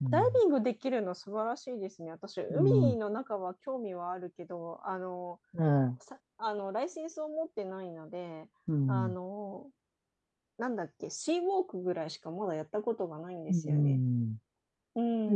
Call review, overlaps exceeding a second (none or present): none